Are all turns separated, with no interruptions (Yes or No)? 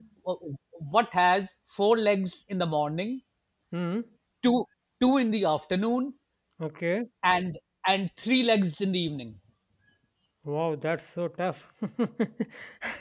Yes